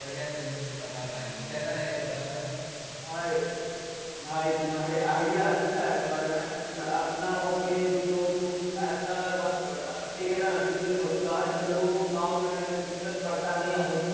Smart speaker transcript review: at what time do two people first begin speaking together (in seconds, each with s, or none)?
none